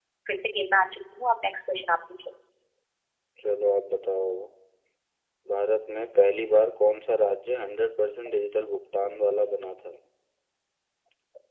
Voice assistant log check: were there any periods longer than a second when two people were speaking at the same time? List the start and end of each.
none

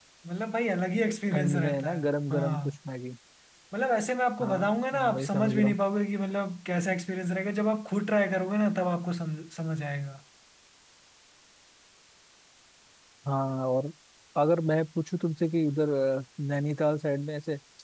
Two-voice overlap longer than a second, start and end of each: 1.3-2.7, 4.4-5.8

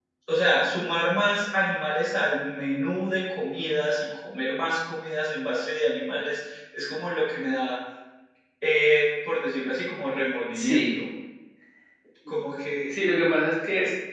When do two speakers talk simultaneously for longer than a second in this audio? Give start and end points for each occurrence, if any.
none

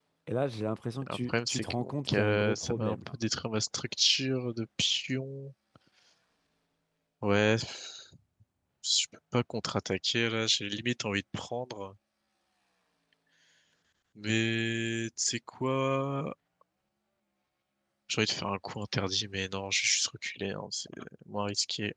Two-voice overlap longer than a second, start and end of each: 1.3-3.1

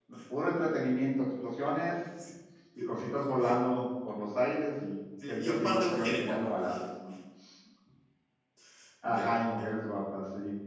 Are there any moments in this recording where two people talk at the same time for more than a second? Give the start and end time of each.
5.3-6.5

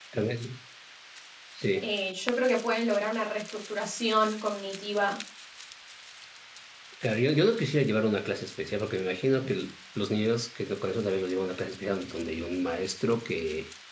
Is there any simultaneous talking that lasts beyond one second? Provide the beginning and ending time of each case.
none

